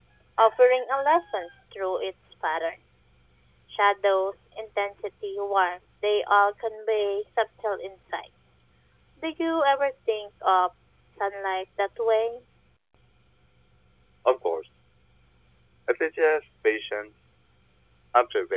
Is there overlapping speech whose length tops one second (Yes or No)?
No